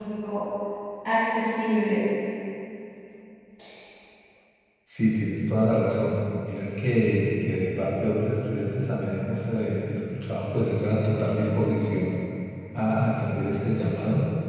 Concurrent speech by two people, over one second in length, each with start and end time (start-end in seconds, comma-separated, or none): none